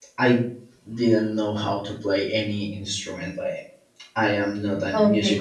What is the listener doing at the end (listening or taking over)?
taking over